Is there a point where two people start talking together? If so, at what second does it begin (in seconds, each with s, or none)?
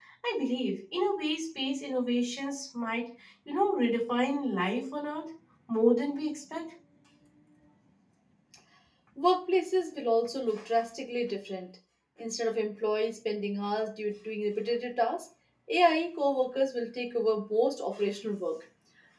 none